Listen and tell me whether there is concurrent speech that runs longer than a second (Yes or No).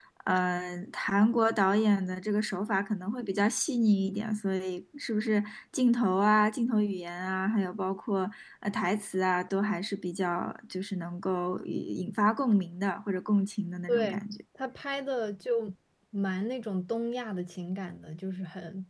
No